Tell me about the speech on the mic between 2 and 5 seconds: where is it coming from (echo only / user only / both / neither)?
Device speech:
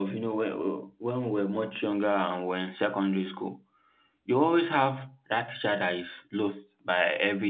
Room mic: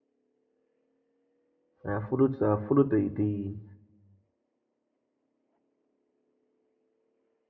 user only